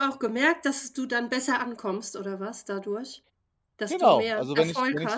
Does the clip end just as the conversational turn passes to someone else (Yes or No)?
Yes